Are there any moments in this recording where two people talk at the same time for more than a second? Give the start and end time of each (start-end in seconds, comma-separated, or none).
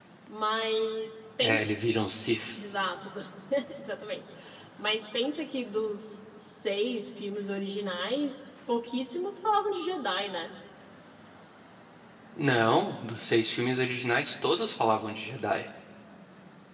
none